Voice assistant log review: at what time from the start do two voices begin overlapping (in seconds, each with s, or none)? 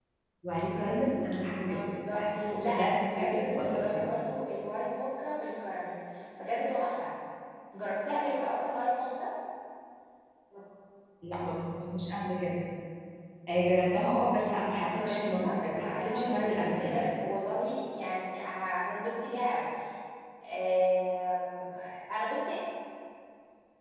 1.7 s